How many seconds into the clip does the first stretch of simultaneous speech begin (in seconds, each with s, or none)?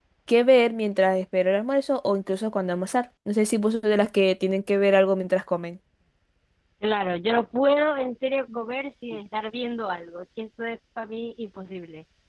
none